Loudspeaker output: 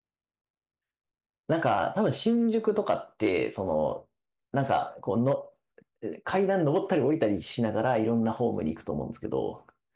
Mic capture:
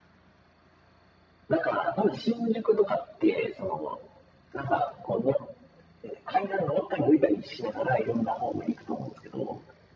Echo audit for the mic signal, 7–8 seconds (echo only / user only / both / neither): echo only